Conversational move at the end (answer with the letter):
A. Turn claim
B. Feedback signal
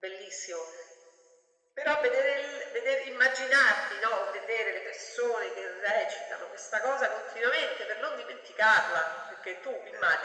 B